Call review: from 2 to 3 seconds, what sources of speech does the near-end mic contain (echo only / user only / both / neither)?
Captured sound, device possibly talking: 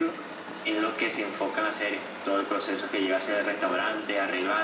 echo only